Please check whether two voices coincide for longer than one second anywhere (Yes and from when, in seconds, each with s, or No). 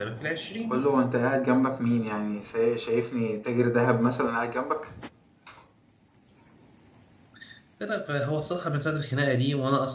No